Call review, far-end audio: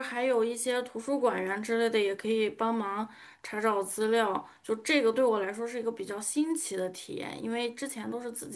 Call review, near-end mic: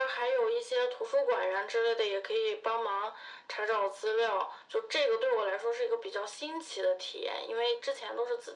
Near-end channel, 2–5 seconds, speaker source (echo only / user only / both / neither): echo only